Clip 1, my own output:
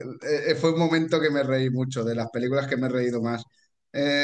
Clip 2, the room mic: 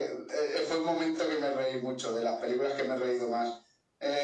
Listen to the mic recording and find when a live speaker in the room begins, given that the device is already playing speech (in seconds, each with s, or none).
none